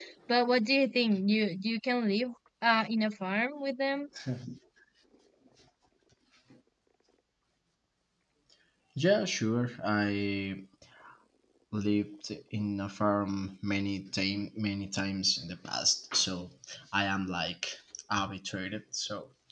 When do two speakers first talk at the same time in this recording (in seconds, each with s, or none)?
none